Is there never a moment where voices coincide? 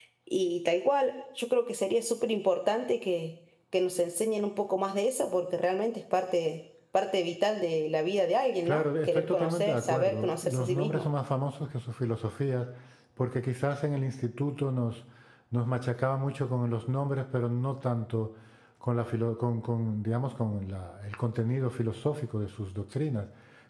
No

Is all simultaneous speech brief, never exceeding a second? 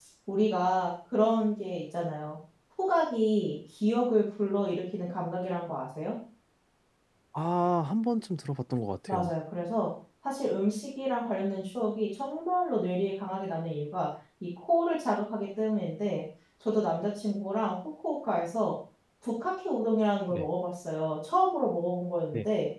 Yes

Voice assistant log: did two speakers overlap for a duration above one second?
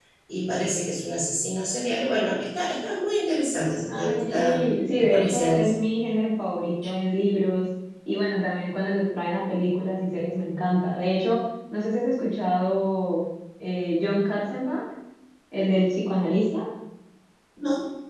Yes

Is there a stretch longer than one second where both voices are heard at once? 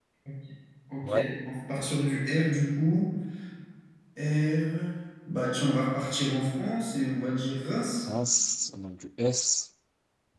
No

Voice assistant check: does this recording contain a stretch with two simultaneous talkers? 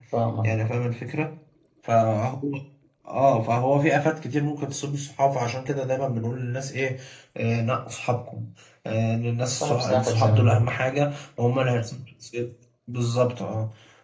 Yes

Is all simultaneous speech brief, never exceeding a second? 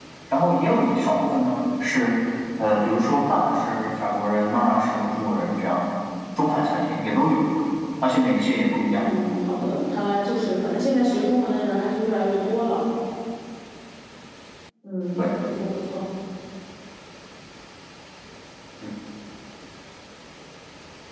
Yes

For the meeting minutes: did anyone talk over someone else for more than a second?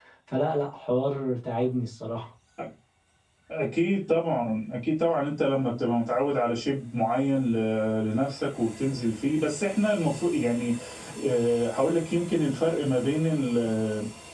No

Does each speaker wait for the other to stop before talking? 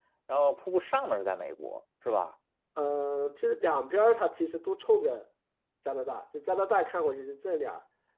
Yes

